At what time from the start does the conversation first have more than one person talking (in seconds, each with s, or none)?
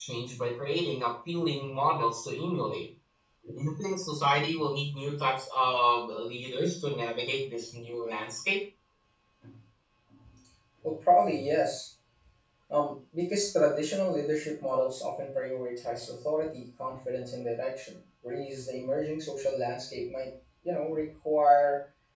none